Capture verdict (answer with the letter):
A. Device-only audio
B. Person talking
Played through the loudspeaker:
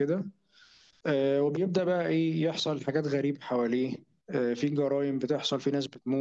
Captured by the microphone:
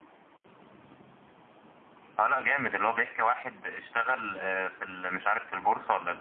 B